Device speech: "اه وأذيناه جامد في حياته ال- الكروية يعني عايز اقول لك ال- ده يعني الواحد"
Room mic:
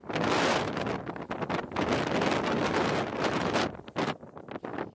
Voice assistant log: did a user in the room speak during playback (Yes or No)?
No